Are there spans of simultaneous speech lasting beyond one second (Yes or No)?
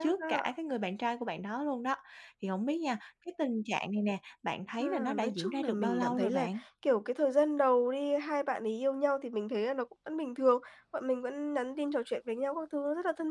Yes